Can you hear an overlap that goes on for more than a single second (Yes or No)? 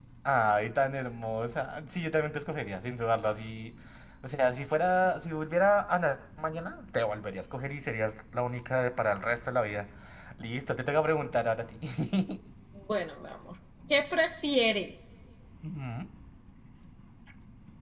No